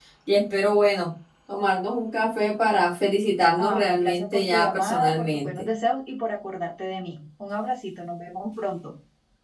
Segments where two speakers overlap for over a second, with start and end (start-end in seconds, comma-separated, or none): 3.6-5.7